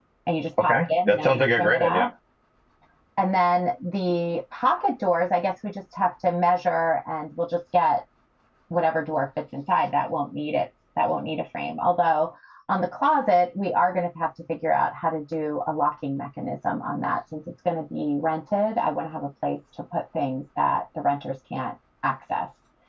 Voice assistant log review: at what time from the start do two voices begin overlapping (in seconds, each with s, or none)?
0.6 s